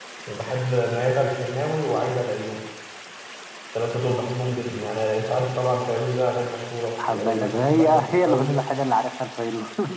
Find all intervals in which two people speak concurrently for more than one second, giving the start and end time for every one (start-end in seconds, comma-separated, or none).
7.1-8.4